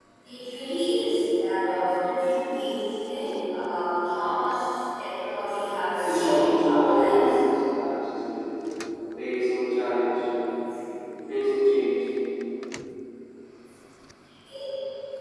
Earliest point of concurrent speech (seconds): 6.0 s

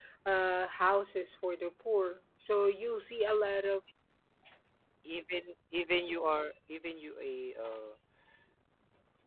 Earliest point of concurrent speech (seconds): none

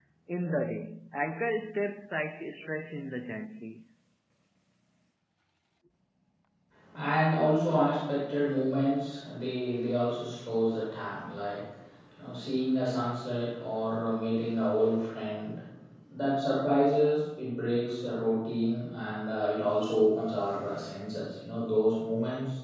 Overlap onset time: none

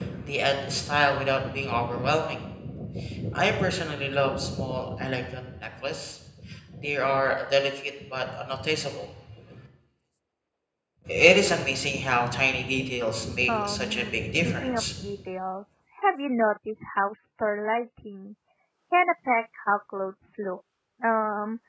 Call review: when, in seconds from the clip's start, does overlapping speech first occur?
13.5 s

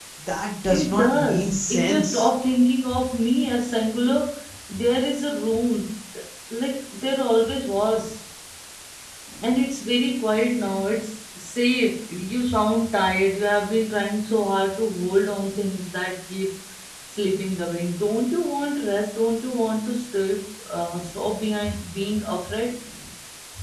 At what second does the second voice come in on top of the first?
0.7 s

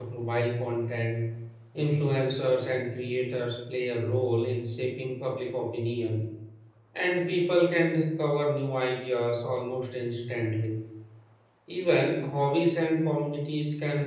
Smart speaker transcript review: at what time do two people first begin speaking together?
none

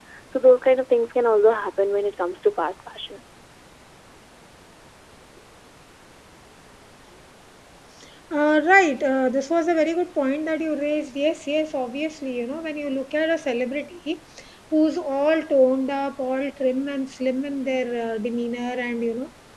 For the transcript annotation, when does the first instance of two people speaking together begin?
none

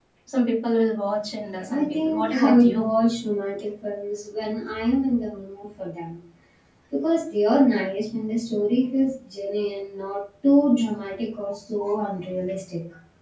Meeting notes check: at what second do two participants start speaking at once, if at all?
1.7 s

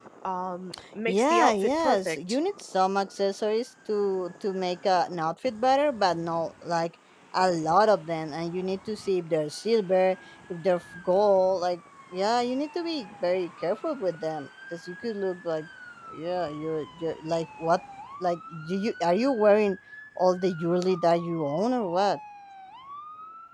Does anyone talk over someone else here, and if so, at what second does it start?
1.1 s

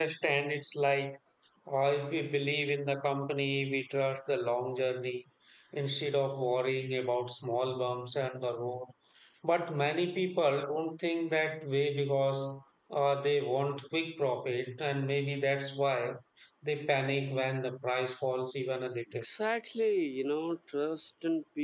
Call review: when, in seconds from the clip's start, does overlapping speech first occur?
none

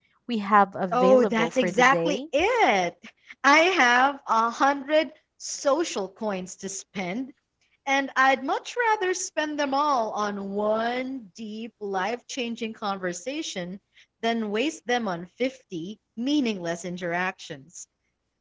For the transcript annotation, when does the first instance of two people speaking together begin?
0.9 s

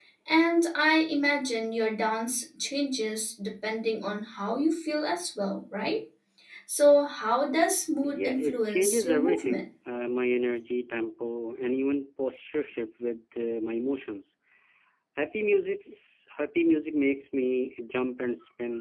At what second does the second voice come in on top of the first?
8.0 s

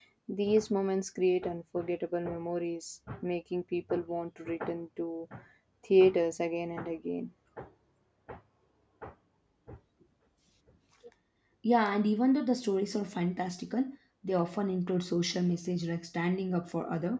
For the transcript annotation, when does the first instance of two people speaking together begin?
none

